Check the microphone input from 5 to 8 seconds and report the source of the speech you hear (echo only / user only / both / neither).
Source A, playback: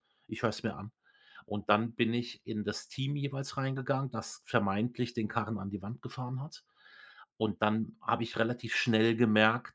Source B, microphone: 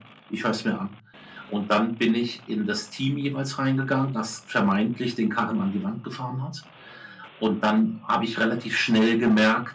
echo only